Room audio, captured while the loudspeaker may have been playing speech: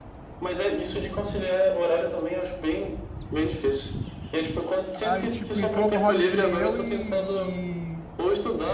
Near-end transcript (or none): aí, tipo, entrou no roleplay eu e, e